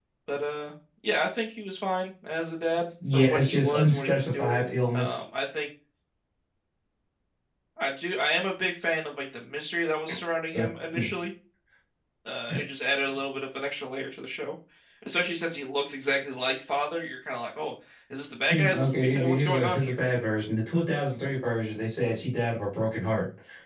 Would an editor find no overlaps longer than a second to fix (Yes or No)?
No